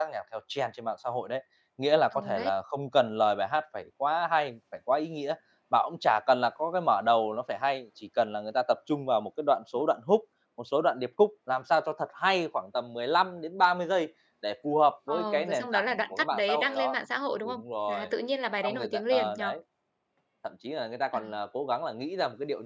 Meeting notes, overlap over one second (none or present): present